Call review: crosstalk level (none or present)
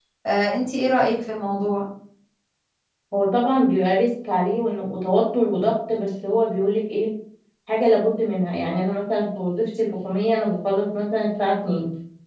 none